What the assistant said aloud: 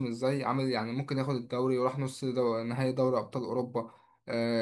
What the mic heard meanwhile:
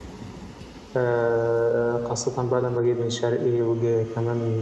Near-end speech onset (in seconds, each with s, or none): 1.0 s